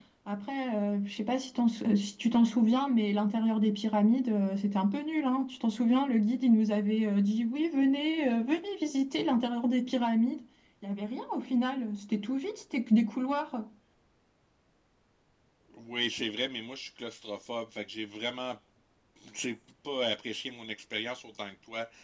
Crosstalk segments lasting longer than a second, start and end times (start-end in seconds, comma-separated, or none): none